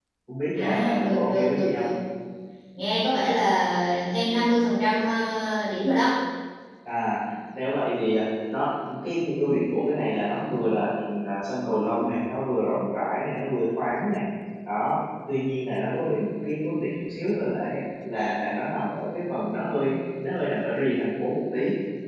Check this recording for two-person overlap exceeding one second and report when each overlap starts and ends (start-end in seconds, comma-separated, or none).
0.6-1.9